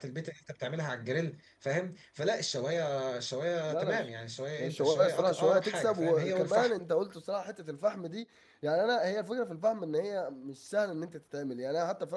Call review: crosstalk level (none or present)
present